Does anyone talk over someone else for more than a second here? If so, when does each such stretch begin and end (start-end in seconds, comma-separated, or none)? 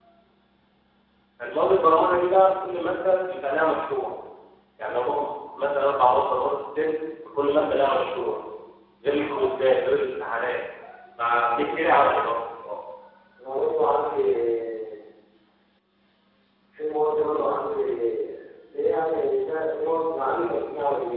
none